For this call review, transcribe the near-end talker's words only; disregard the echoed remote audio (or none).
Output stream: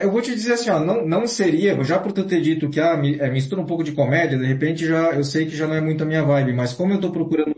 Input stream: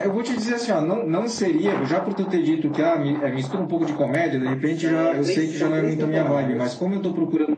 São três, são três temporadas.